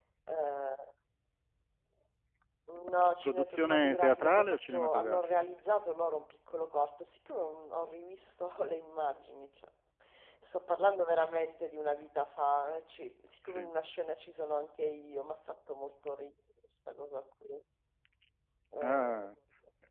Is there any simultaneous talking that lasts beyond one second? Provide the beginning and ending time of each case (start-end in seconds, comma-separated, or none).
3.2-5.2